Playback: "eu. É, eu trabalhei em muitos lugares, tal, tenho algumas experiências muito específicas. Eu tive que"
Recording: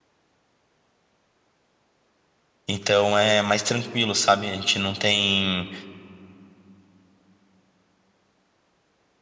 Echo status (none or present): none